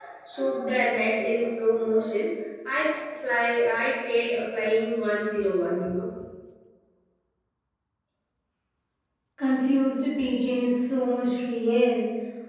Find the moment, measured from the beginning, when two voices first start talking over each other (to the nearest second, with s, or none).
none